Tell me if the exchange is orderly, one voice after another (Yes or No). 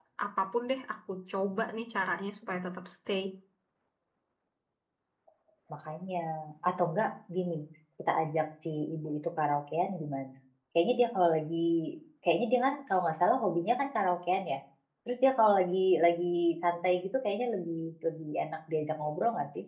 Yes